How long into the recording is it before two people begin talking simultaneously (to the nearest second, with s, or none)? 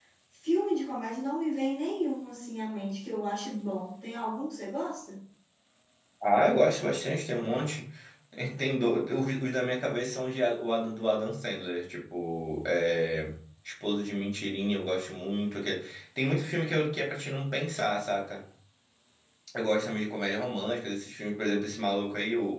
none